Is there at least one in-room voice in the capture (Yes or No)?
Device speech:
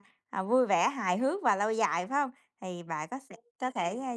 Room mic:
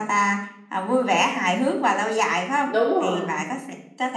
Yes